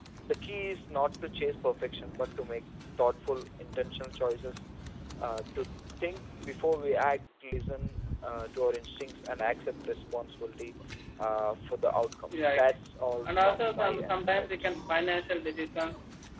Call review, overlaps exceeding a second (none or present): present